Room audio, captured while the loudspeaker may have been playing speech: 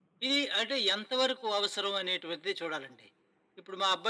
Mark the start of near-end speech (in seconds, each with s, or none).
none